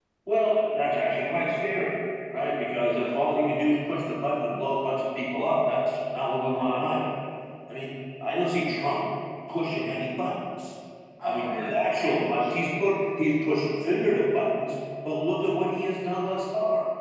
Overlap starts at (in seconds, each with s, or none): 11.2 s